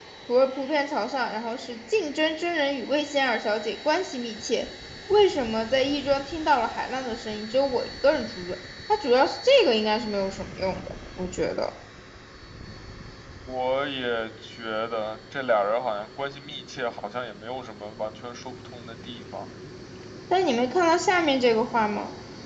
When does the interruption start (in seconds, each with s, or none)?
none